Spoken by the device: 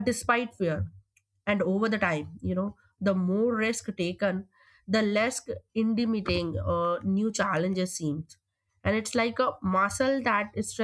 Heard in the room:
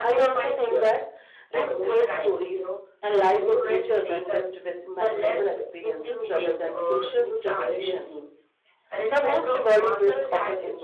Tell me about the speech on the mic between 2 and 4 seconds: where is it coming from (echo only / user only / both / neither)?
both